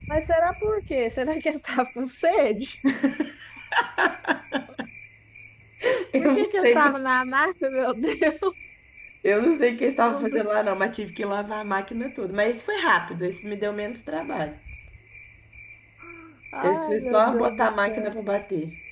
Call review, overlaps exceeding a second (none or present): present